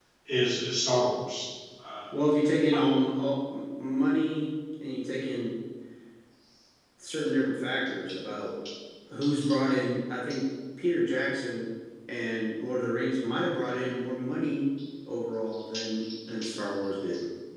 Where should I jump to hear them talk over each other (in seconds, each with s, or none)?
none